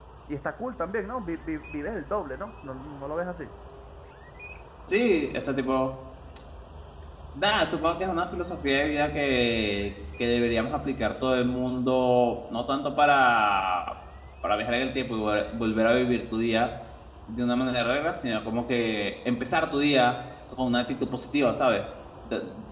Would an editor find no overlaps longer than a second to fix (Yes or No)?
Yes